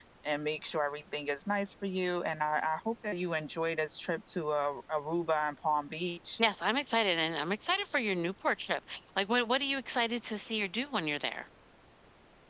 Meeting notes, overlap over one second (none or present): none